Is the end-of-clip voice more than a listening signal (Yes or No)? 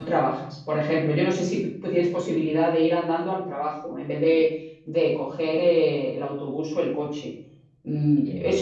No